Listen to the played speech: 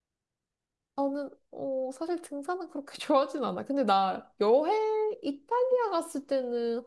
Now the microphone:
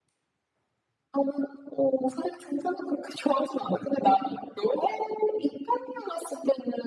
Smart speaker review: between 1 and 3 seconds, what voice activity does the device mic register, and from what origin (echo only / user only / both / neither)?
echo only